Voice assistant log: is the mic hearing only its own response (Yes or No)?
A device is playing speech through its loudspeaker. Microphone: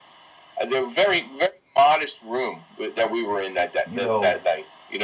No